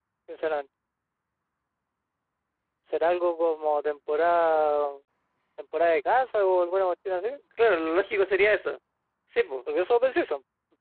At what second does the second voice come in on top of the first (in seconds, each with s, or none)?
none